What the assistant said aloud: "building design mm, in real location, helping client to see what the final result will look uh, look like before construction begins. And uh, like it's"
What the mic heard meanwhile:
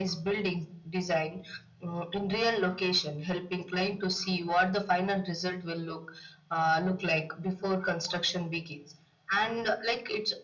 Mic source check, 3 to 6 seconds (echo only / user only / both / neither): echo only